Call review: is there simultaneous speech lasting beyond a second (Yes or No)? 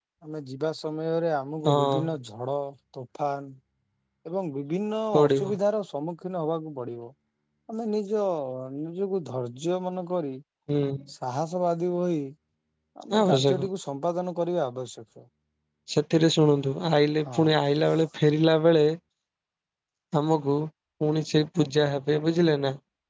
No